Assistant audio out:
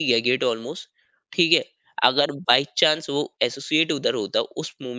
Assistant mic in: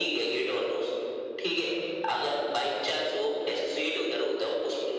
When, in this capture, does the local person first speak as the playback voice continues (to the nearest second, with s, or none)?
none